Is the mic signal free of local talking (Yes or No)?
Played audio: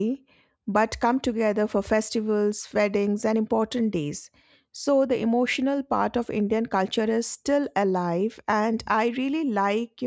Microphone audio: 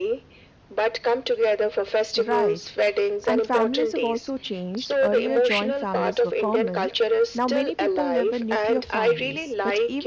No